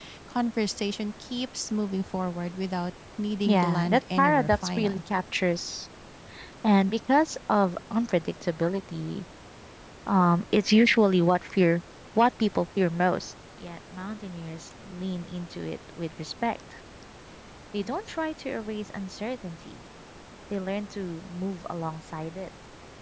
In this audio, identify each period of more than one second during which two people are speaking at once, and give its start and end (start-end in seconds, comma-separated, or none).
3.4-5.0